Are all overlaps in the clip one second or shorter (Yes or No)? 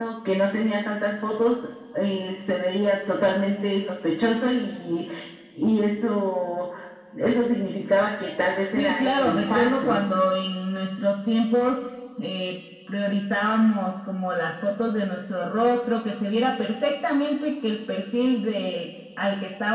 No